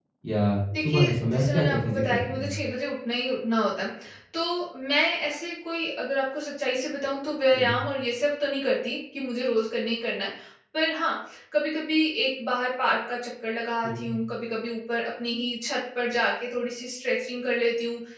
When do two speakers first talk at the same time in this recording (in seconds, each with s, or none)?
0.8 s